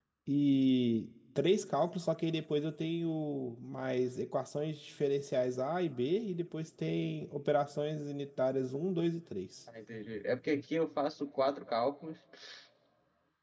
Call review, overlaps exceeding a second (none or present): none